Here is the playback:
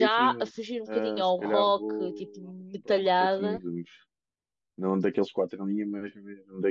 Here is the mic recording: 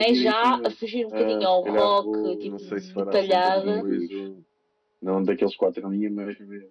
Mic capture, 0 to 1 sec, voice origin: echo only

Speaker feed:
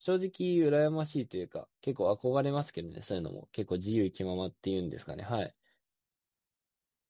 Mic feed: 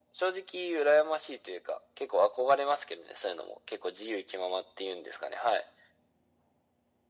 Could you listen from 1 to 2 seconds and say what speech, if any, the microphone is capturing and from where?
echo only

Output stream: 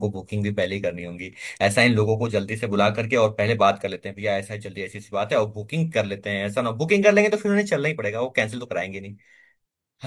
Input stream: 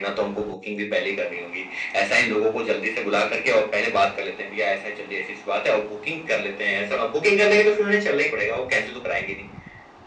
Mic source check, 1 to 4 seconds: echo only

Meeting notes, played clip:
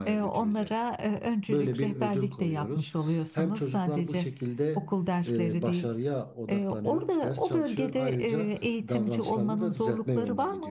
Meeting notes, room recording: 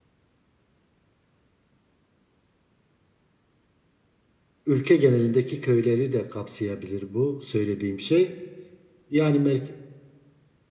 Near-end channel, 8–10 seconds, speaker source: user only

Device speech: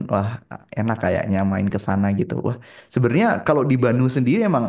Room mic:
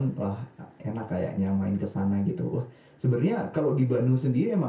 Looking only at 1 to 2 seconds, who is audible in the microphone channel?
echo only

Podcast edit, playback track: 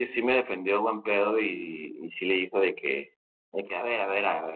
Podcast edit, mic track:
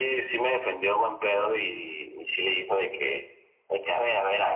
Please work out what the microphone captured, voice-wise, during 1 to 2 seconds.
echo only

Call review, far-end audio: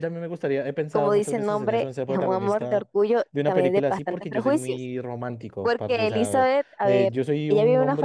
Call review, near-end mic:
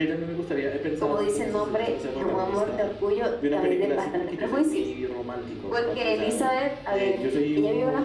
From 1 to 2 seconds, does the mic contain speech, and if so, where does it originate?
echo only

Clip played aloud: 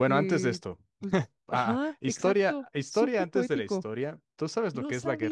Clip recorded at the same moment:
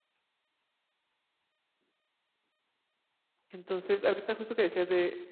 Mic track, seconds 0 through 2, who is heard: neither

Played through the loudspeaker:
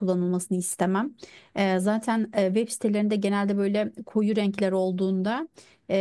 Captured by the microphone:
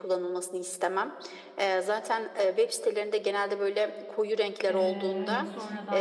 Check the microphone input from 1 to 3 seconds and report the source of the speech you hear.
echo only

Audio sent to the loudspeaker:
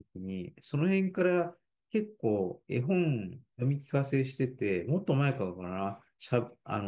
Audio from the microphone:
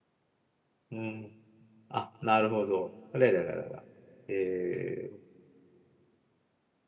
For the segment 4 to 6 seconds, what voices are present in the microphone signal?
user only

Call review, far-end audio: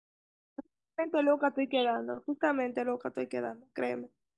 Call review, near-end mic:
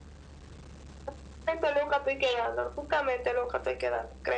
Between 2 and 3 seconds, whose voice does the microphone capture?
echo only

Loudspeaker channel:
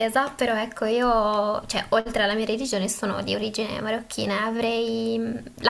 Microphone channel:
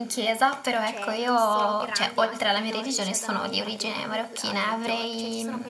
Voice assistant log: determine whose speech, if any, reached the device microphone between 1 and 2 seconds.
both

